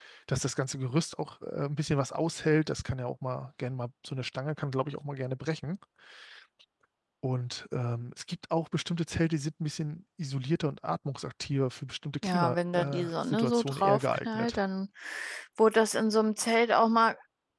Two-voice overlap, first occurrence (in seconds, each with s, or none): 12.2 s